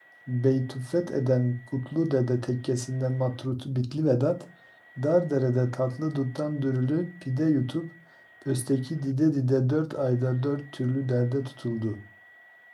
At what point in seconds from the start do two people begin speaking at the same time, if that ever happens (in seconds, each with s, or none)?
none